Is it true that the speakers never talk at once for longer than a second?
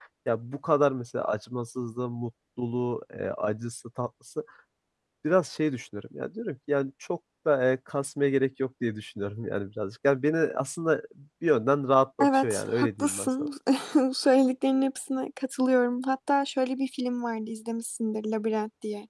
No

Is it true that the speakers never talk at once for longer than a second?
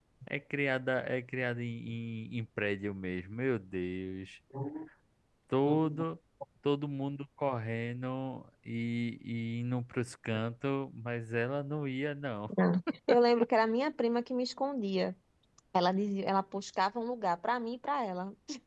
Yes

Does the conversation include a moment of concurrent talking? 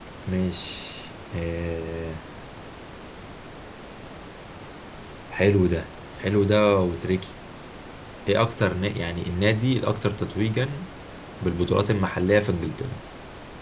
No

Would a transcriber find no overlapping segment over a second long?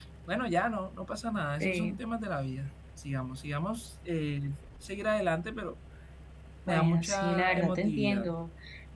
No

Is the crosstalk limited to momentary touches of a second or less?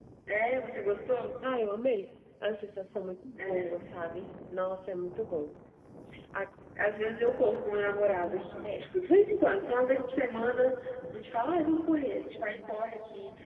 Yes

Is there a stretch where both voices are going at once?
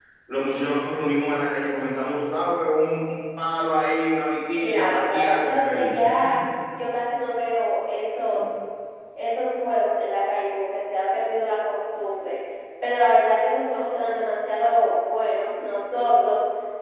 Yes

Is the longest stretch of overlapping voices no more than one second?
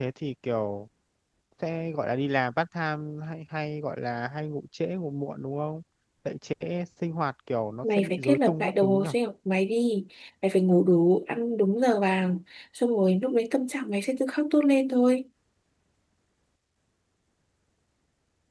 No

